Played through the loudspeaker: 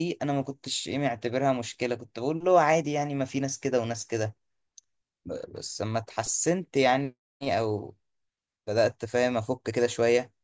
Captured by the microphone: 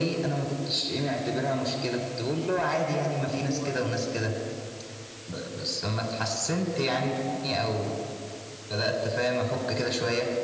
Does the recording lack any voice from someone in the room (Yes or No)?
No